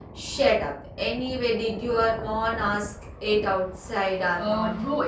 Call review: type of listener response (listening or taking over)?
taking over